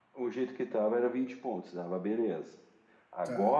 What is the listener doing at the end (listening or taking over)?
listening